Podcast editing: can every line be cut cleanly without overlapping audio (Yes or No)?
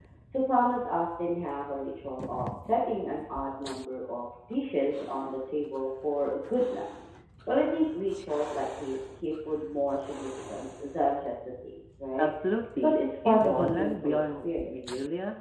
No